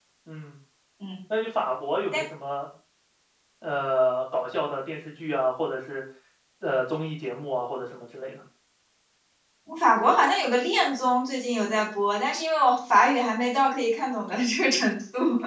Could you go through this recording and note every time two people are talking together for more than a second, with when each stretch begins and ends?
none

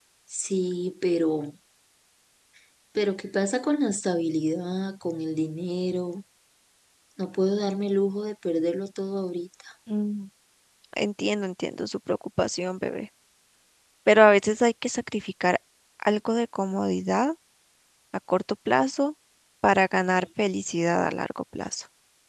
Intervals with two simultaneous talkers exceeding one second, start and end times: none

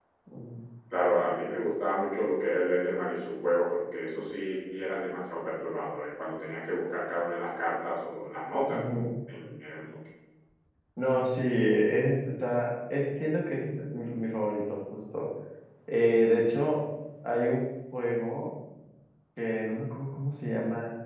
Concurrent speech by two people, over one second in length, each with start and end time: none

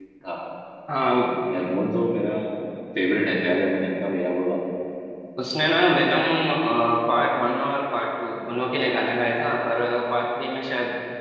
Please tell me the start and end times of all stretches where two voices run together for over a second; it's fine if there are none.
none

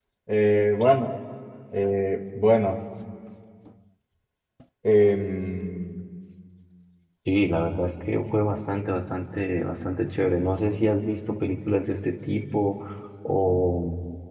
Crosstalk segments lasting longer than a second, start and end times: none

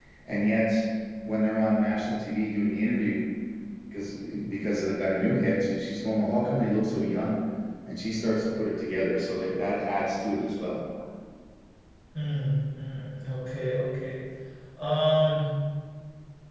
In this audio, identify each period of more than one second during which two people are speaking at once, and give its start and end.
none

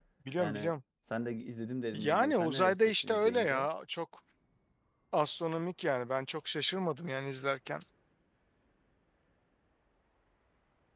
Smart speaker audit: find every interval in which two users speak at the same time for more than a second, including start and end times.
1.9-3.7

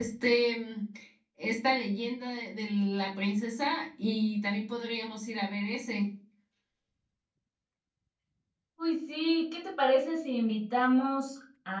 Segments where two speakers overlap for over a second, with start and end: none

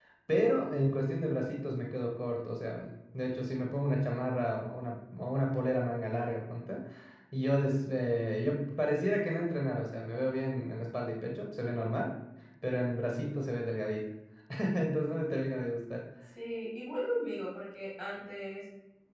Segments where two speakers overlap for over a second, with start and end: none

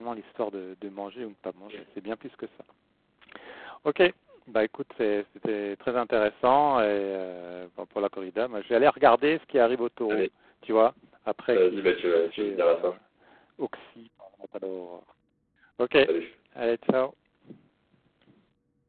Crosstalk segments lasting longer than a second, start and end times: 11.5-12.9

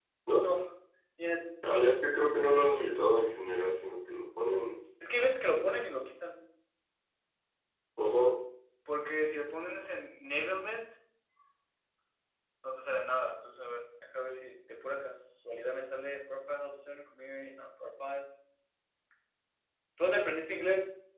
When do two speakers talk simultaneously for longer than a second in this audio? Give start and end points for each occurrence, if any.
none

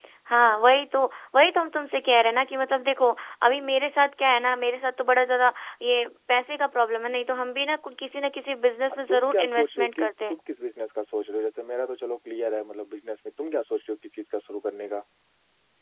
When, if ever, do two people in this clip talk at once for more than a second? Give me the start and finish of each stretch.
9.1-10.3

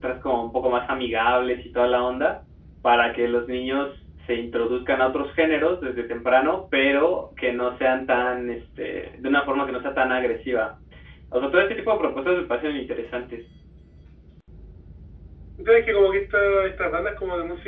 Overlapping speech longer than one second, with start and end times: none

